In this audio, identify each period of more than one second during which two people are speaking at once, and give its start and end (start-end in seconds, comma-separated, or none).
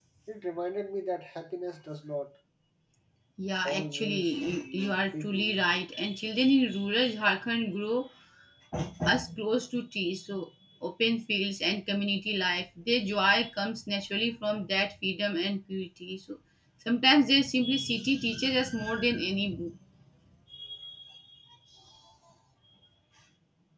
3.6-5.6